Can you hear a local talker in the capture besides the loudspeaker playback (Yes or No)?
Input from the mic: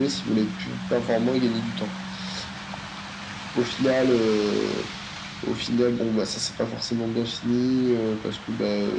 No